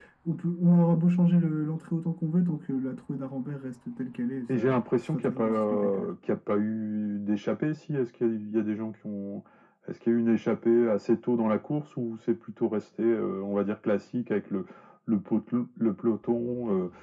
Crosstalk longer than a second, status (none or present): present